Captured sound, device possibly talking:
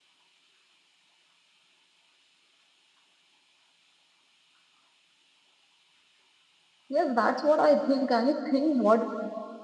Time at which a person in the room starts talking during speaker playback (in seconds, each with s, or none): 6.9 s